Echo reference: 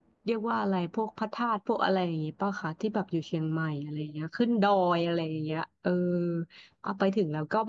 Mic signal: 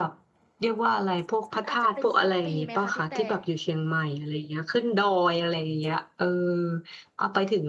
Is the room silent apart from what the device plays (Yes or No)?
No